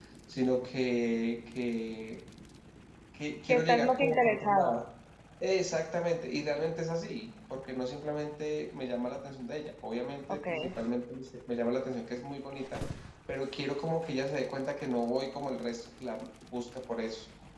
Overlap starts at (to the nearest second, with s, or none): 3 s